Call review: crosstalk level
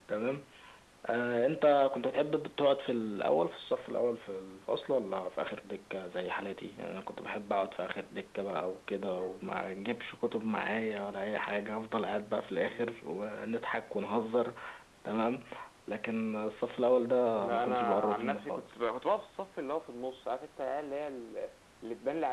present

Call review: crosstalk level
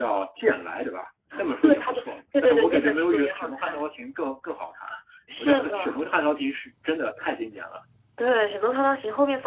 present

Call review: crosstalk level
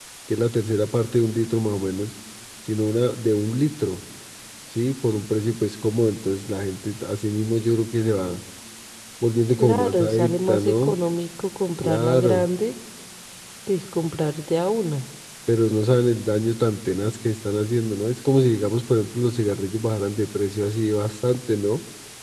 present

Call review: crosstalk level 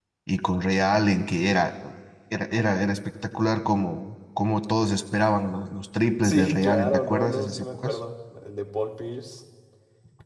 present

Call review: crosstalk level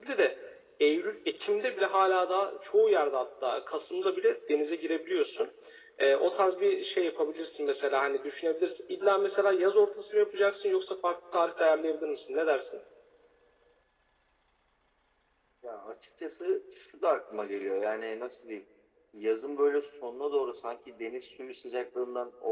none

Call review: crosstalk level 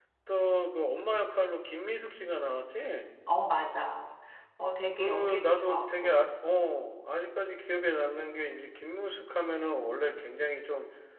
present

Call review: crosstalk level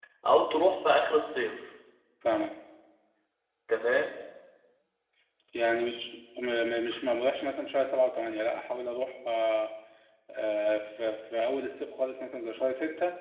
none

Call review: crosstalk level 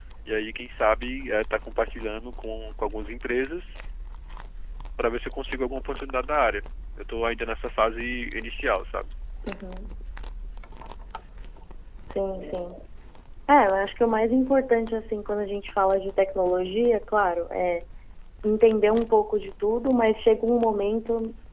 none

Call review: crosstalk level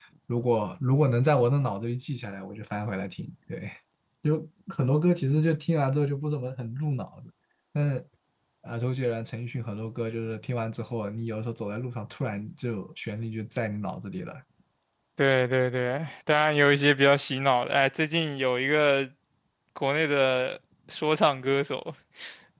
none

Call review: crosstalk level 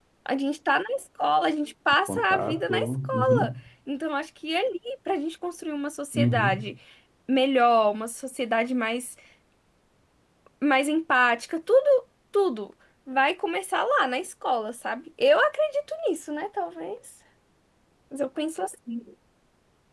present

